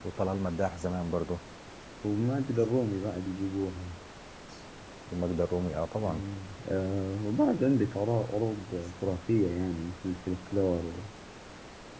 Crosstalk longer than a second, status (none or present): none